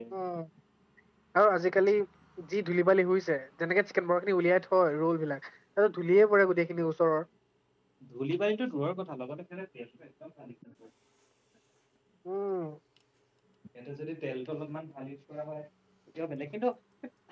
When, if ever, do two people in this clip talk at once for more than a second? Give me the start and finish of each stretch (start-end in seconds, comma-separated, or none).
none